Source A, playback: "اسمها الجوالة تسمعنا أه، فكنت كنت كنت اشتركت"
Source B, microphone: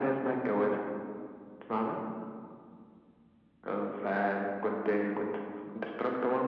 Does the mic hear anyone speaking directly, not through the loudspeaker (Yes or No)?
No